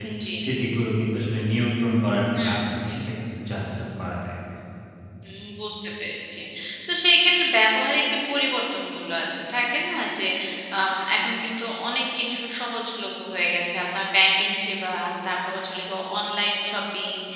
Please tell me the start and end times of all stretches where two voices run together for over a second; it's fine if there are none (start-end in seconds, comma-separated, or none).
none